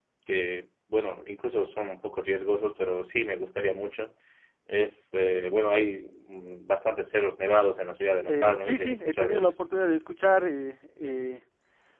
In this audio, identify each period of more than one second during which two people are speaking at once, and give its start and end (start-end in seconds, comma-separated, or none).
8.3-9.6